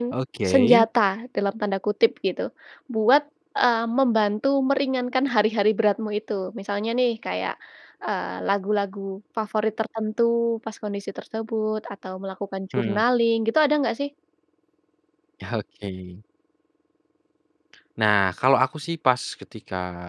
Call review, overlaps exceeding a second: none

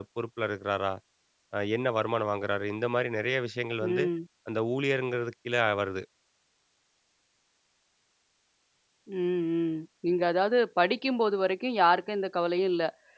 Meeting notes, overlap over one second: none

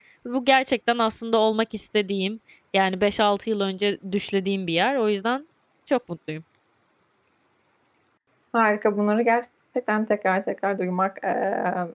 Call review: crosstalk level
none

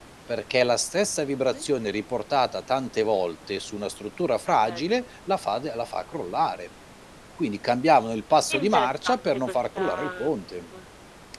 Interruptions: present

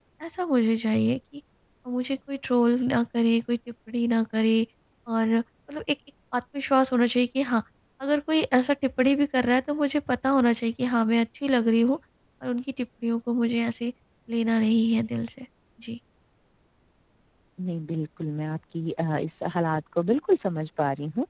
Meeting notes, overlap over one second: none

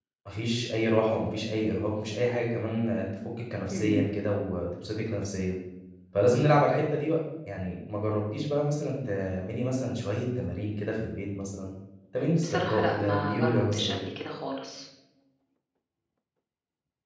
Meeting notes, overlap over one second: present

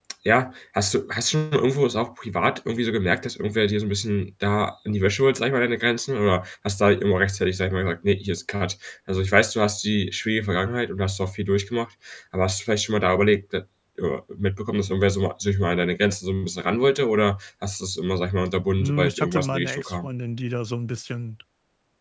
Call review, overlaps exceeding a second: present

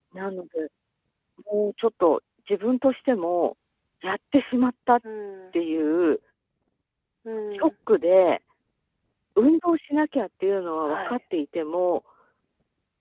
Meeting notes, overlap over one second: none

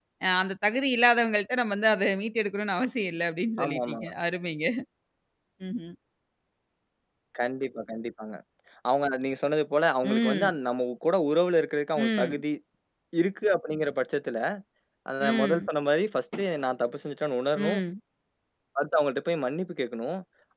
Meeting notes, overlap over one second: none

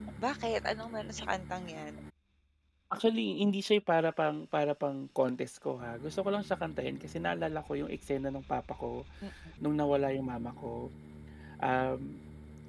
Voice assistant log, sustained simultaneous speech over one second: none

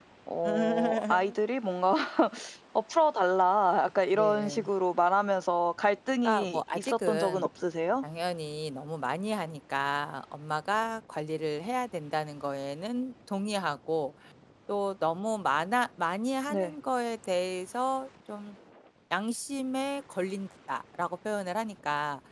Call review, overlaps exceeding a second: present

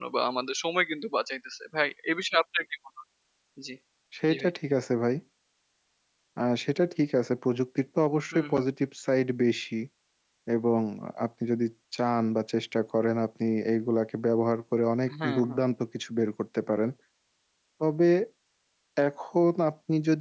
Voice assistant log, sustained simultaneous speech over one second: none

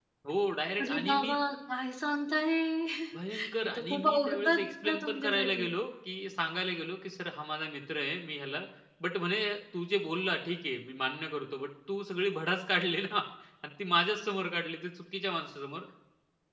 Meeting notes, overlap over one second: present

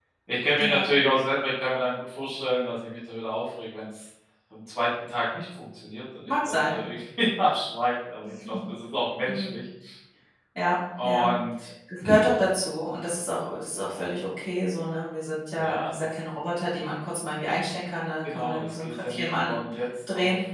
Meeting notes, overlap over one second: present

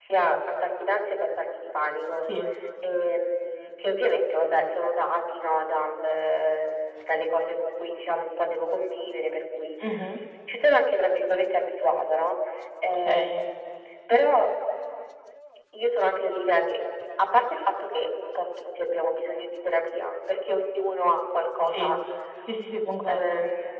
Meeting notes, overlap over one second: none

